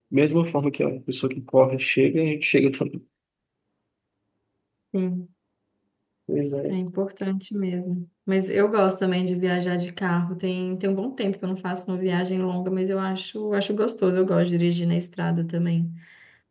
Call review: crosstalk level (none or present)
none